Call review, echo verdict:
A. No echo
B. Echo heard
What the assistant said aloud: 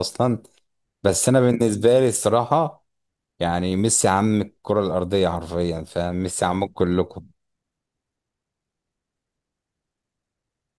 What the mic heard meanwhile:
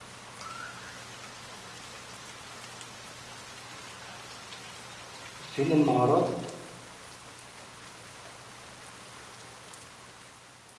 A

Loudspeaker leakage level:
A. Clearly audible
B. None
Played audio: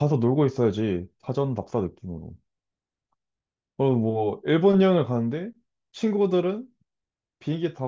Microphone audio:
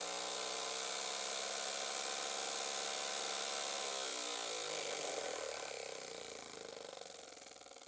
B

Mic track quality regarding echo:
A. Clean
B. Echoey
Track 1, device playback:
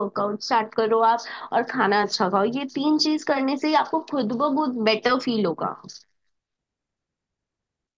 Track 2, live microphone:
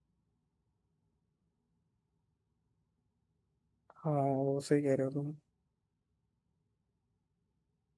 A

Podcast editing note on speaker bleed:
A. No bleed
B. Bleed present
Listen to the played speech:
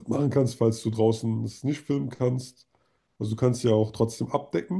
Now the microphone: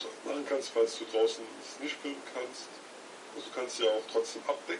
B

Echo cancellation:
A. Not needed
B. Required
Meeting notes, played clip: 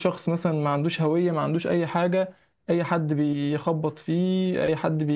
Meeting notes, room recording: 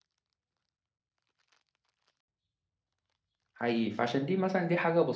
A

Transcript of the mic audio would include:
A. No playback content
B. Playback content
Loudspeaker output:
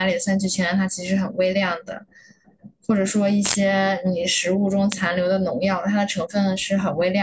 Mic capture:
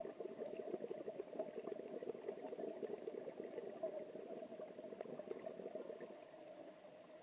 A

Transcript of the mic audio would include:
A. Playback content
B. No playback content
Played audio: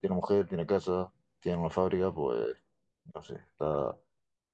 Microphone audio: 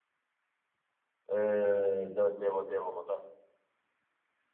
B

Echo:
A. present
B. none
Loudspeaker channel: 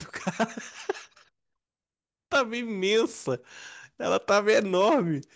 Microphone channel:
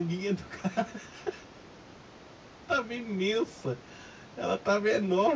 A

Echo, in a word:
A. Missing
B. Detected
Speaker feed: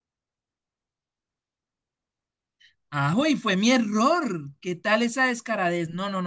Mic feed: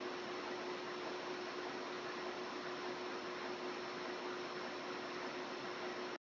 A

